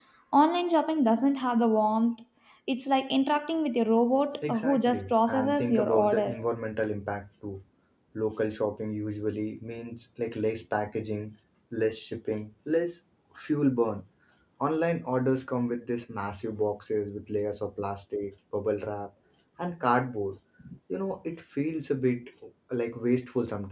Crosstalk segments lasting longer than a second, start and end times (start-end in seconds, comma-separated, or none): 4.5-6.4